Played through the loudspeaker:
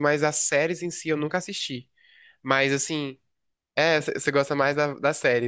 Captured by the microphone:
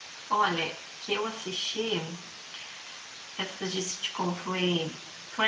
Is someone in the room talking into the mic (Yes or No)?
Yes